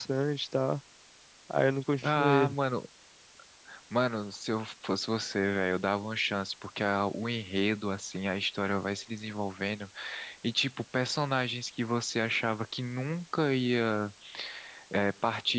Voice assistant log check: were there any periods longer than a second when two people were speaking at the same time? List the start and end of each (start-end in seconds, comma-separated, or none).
none